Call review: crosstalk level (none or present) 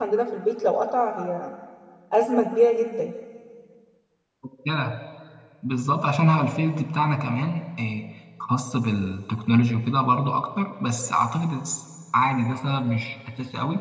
none